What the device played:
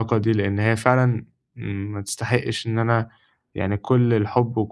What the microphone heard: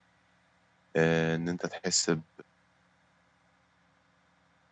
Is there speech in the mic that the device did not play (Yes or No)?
Yes